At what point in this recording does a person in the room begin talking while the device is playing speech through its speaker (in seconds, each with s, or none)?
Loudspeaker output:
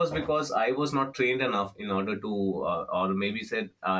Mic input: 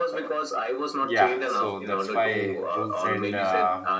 1.0 s